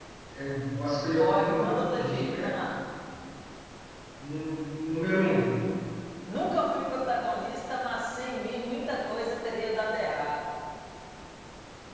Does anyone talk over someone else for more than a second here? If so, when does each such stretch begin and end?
1.2-2.5

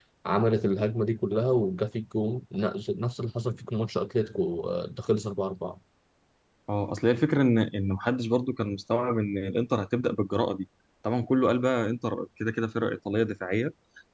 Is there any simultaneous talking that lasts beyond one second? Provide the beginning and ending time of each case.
none

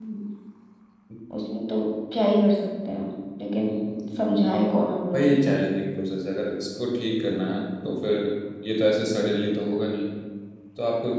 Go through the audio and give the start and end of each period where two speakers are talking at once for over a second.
none

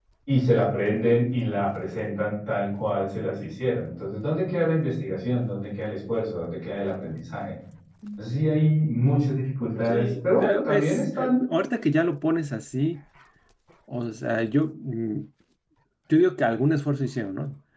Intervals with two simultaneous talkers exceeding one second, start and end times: 9.9-11.4

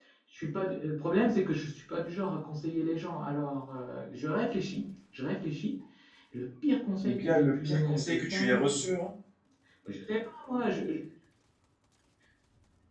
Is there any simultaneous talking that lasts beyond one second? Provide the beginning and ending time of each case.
7.0-8.7

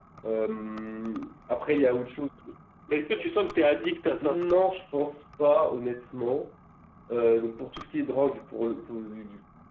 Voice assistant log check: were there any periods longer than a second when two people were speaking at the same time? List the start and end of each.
none

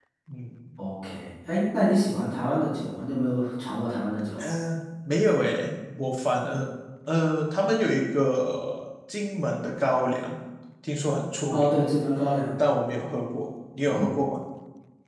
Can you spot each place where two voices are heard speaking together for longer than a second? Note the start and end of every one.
none

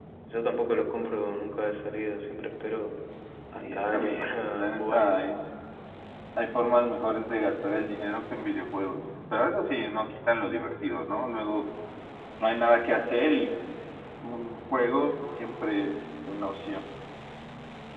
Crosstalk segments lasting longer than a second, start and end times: 3.5-5.2

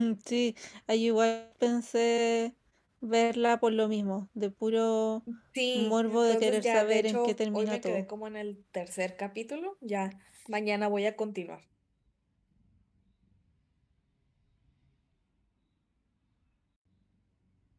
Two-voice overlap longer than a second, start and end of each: 5.7-8.1

